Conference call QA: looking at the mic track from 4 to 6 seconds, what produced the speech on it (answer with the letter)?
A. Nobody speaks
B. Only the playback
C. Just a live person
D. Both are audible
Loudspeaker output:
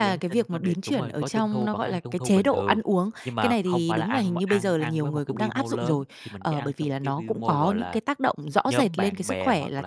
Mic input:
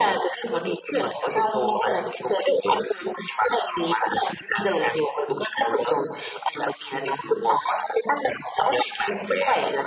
B